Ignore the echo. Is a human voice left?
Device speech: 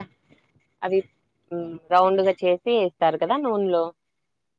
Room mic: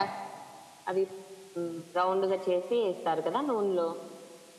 No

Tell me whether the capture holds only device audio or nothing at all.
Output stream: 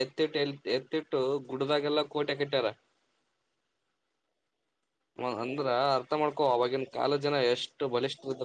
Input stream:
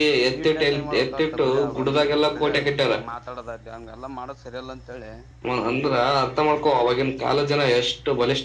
No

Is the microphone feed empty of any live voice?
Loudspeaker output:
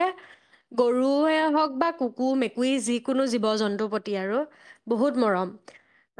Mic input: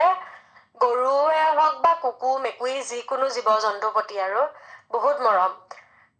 Yes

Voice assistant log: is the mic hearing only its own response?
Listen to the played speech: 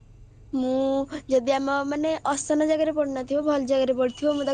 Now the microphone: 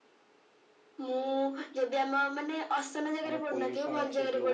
No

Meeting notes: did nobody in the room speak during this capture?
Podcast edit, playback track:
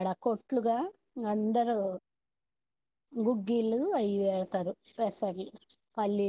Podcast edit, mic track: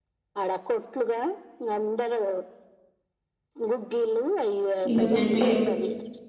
No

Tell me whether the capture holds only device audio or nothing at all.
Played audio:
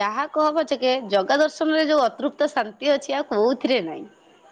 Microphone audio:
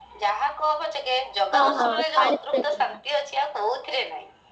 No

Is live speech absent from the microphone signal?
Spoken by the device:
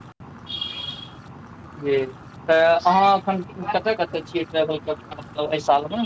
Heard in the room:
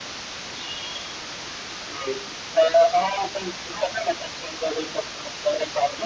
Yes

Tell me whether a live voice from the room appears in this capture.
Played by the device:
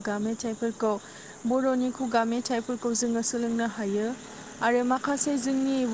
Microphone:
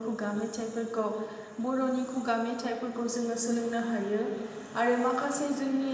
No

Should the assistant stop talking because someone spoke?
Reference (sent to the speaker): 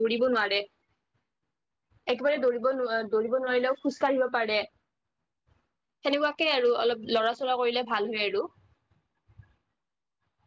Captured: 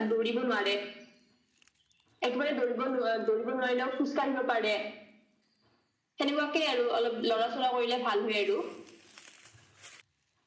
No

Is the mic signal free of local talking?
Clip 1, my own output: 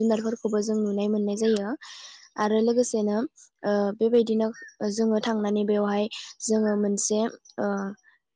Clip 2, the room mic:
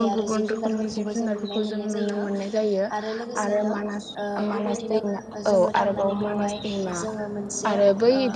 No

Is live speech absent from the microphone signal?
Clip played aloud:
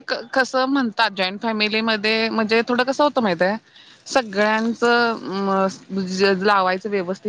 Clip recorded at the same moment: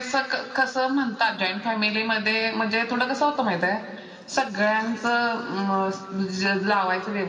Yes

